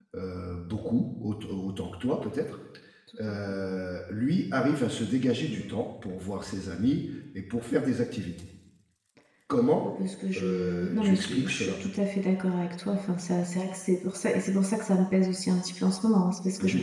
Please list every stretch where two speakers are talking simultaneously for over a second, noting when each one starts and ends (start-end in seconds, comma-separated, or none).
10.3-11.8